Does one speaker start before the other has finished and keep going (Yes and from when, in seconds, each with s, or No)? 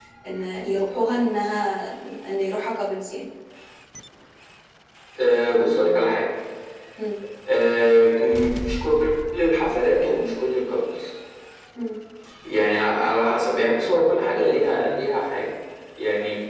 No